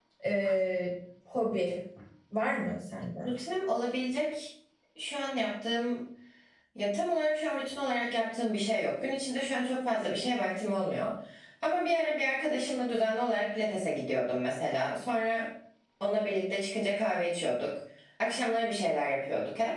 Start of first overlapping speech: none

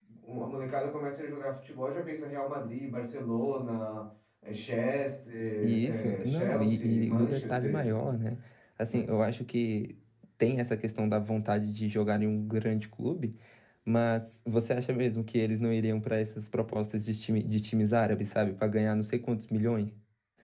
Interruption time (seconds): 6 s

